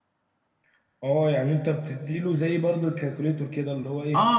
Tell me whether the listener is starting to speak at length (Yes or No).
Yes